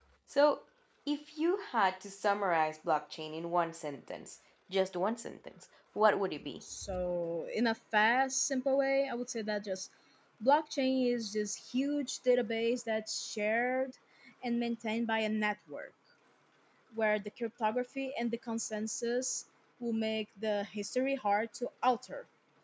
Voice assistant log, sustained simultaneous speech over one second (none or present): none